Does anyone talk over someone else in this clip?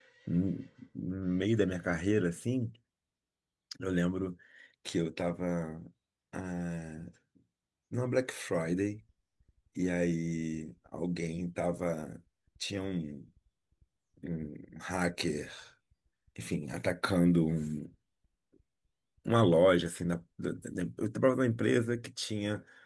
No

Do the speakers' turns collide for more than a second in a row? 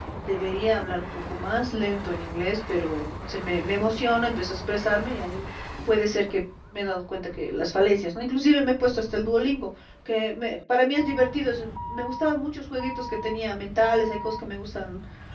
No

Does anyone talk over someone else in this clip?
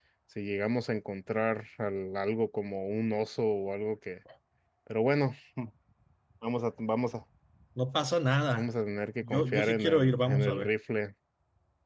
Yes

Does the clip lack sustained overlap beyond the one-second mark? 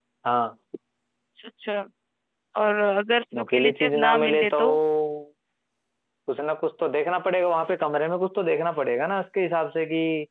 No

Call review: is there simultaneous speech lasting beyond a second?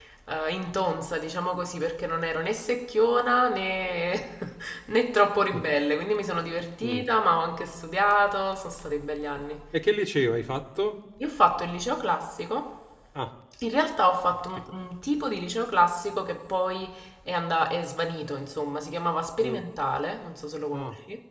No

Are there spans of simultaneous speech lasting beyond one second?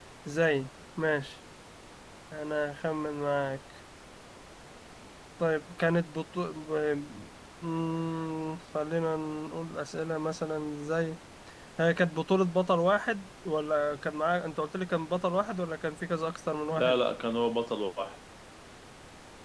No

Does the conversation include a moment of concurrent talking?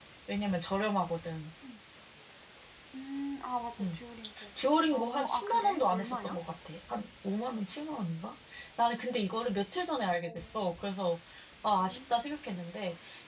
Yes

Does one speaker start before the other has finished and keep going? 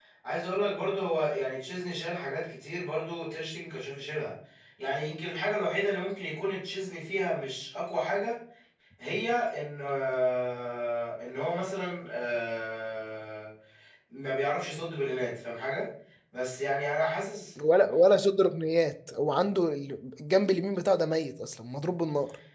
No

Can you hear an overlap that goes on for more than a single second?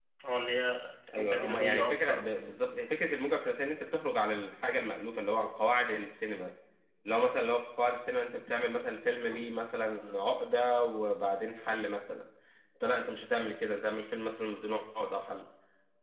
Yes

